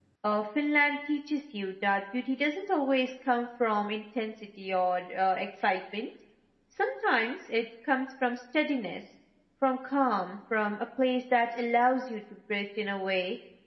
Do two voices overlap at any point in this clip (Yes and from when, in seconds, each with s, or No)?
No